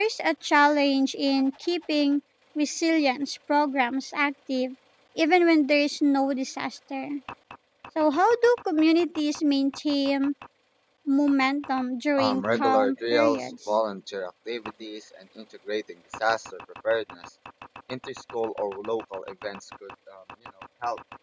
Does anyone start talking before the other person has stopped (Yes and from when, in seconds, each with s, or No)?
Yes, from 12.2 s